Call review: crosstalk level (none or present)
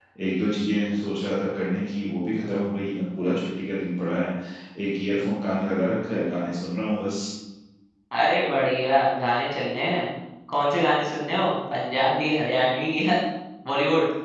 none